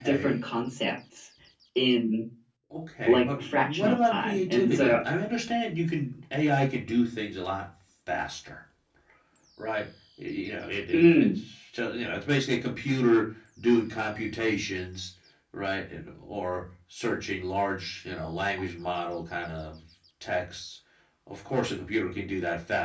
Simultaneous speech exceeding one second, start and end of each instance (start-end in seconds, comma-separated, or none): 3.1-5.0